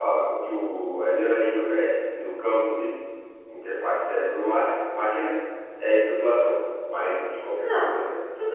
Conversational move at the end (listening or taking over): taking over